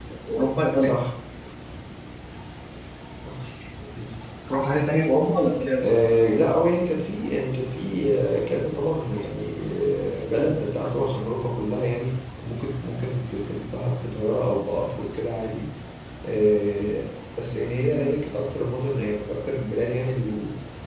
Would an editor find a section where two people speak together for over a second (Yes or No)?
No